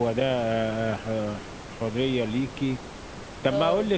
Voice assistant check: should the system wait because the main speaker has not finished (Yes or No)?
Yes